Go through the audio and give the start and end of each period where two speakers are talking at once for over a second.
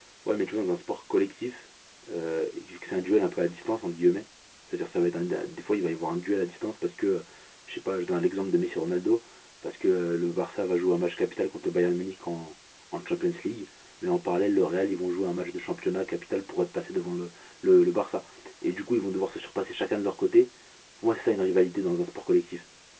none

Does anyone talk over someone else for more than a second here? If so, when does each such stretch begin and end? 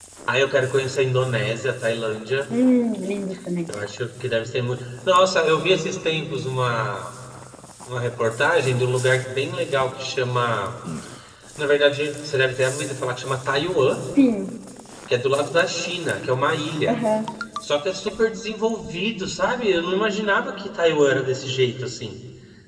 none

